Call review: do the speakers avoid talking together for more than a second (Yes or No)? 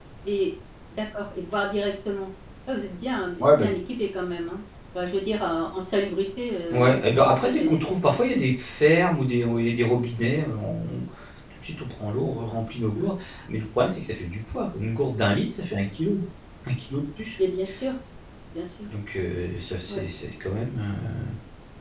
No